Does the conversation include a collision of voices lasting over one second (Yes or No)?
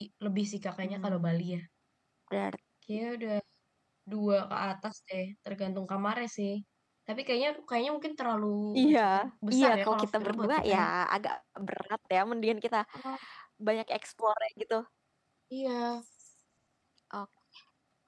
Yes